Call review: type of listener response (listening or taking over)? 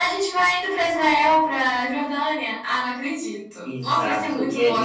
taking over